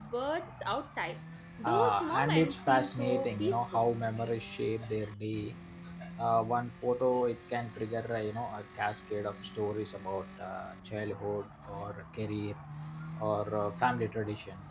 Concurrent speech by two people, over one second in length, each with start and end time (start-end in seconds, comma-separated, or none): 1.6-3.8